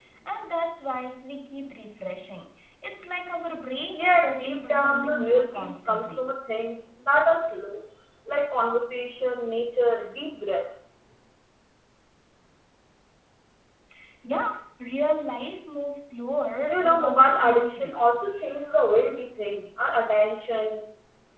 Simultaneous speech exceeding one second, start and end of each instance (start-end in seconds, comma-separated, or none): 3.9-6.3, 16.7-18.2